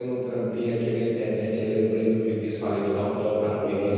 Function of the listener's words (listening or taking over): listening